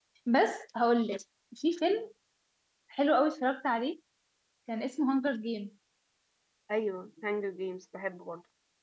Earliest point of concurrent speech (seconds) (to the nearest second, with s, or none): none